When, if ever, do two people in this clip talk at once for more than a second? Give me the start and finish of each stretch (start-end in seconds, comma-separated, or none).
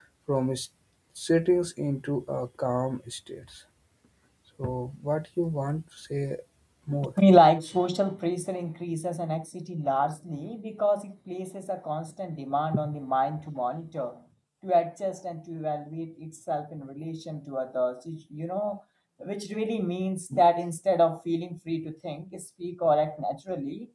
none